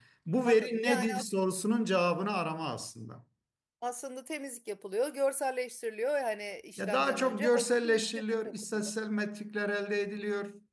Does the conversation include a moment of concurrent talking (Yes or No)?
Yes